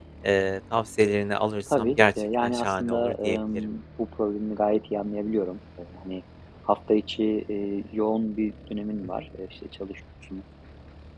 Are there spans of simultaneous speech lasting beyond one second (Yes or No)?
Yes